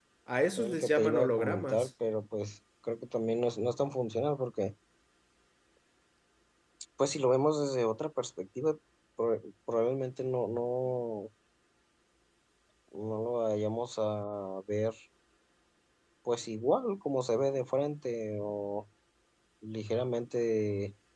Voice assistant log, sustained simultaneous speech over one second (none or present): present